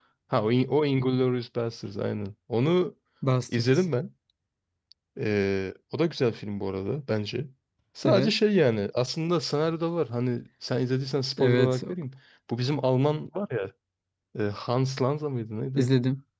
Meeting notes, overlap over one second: none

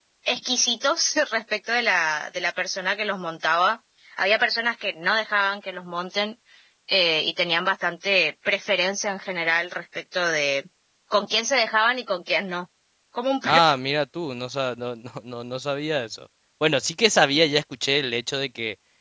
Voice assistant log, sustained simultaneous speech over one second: none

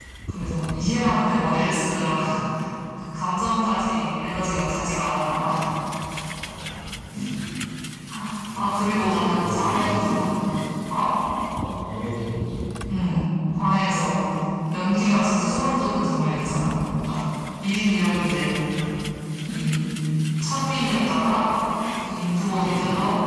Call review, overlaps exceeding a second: present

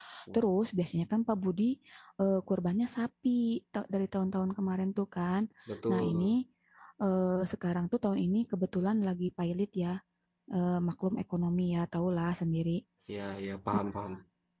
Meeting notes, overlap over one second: none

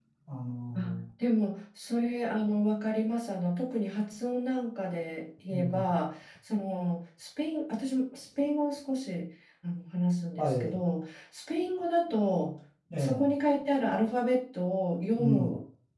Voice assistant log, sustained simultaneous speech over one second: none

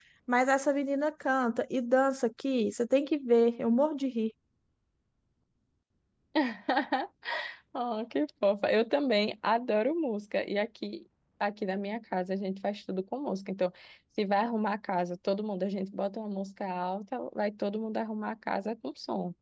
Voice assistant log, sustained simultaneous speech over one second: none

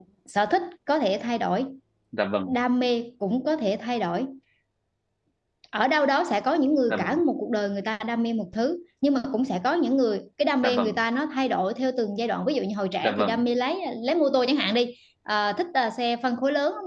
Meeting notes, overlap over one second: none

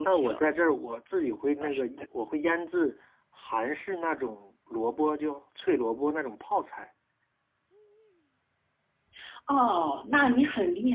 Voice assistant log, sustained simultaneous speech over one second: none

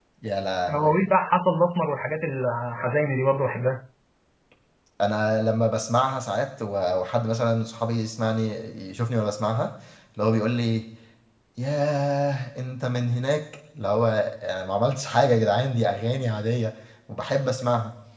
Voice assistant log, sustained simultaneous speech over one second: none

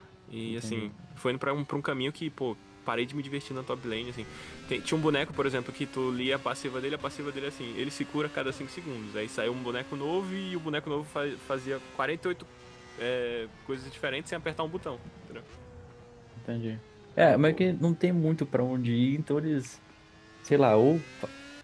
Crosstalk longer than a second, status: none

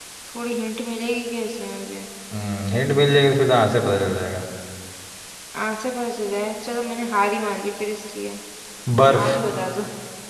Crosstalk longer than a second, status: none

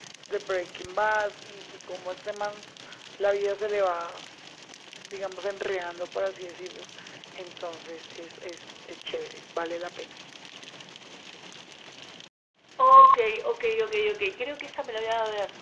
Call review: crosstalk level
none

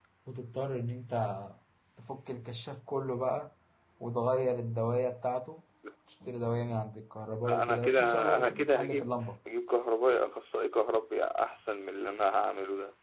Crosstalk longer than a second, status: present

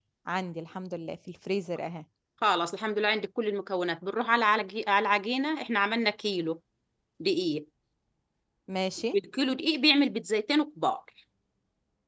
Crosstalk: none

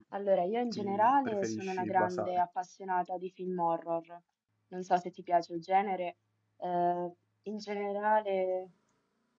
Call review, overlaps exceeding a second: present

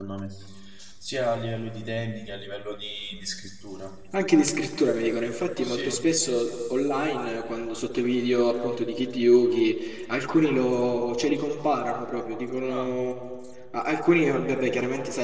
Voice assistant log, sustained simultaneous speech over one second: none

